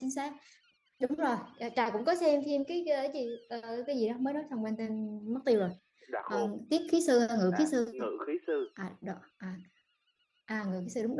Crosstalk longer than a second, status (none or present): none